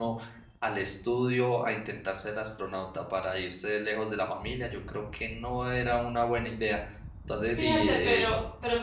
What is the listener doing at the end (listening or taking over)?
taking over